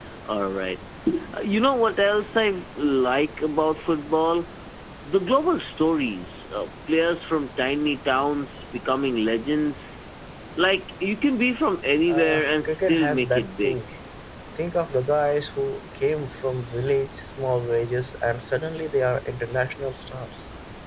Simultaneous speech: Yes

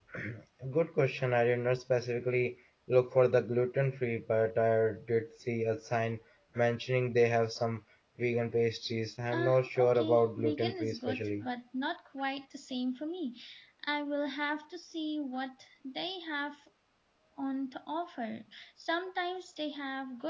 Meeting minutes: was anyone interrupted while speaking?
Yes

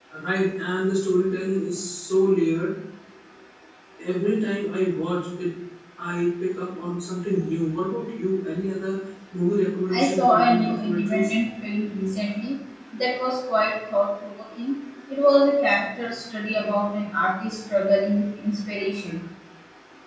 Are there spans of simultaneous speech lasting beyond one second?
Yes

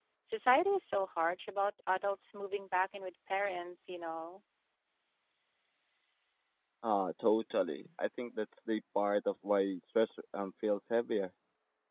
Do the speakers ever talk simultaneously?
No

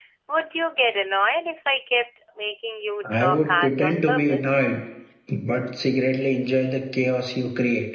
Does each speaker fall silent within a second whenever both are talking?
No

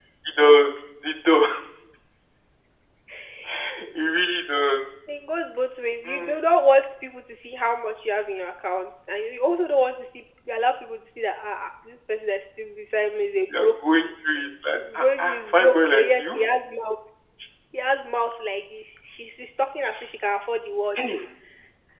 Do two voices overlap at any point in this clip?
Yes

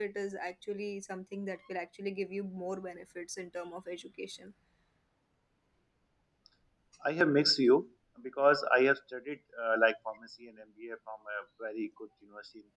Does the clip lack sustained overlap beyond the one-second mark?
Yes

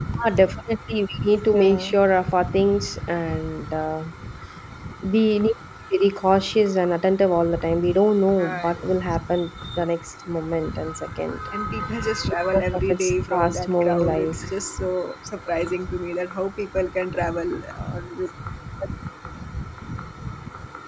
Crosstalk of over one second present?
Yes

